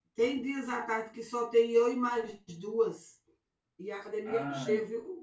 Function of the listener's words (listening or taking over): listening